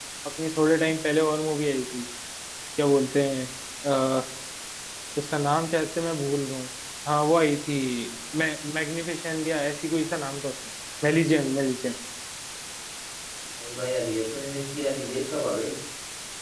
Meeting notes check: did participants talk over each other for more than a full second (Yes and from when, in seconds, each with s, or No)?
No